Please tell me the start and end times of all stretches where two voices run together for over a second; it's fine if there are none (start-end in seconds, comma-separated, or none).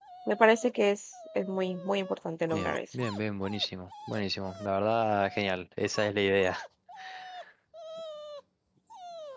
none